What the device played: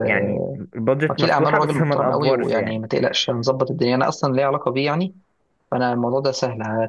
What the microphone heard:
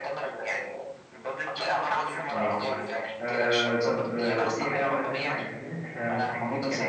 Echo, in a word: present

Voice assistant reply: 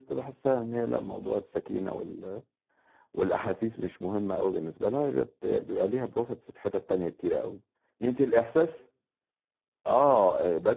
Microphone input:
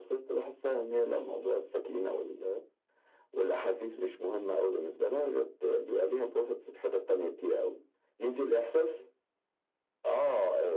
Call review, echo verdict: present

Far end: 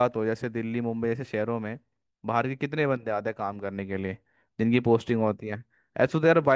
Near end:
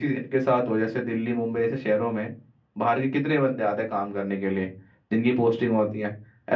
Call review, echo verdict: present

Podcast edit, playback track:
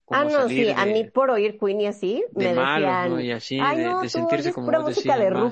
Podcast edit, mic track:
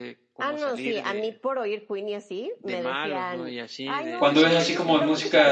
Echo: present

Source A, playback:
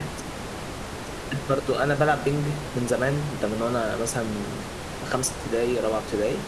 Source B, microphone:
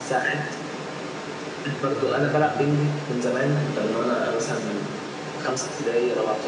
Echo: present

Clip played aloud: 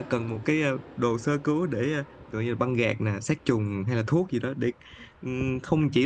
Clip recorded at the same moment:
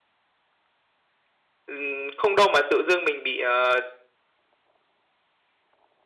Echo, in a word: none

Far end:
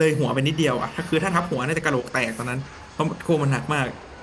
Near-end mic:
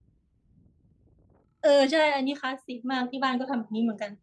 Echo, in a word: none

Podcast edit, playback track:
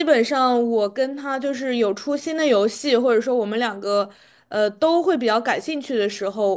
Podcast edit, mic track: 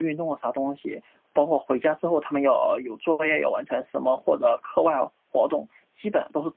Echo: none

